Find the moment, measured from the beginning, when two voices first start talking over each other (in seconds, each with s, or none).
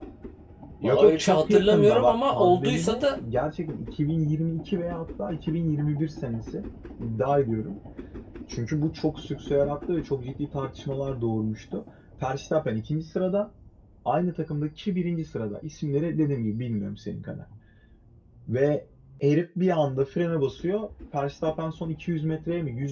0.8 s